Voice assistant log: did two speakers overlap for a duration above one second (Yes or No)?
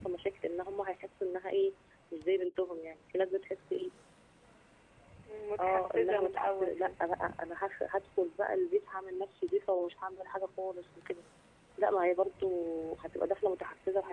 Yes